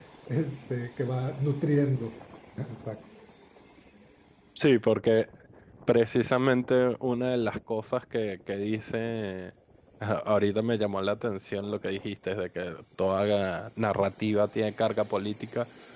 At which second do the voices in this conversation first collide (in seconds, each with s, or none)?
none